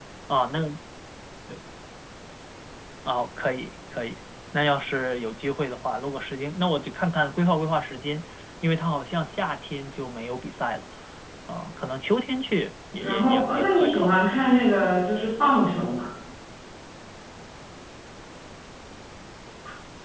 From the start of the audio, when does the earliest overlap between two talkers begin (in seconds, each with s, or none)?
13.0 s